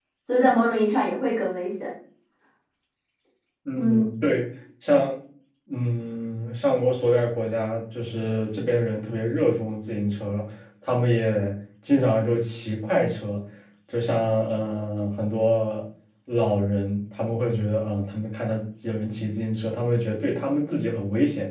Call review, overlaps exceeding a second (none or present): none